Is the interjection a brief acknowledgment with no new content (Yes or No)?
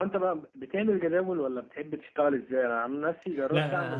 Yes